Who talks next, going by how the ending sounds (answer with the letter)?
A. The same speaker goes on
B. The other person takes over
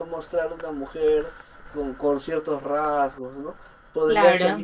A